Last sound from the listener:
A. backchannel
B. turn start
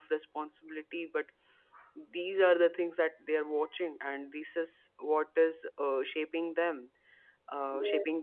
A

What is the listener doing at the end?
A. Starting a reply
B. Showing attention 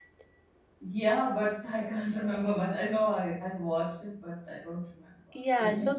A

